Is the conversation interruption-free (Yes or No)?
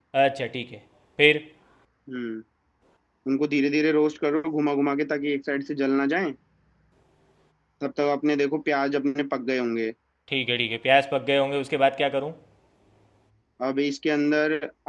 Yes